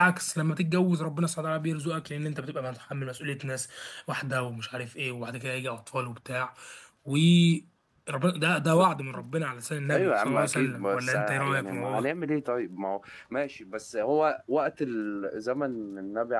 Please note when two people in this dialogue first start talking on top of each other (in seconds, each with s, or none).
9.9 s